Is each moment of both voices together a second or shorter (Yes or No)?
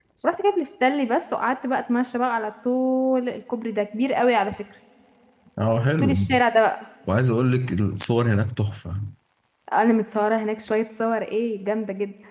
Yes